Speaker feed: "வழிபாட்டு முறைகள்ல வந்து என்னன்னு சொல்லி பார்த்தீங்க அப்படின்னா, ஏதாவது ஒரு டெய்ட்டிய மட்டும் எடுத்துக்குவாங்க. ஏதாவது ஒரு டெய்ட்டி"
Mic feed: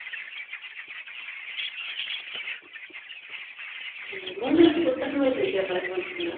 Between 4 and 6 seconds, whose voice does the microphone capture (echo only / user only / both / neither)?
user only